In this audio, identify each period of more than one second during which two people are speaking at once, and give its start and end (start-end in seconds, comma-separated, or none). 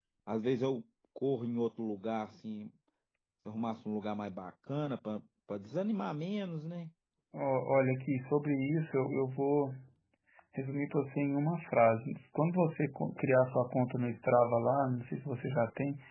none